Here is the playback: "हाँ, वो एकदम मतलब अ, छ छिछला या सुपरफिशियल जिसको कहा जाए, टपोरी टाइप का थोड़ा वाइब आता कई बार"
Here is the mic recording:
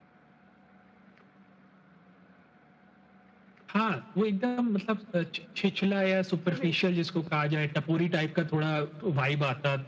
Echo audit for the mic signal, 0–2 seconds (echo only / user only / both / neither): neither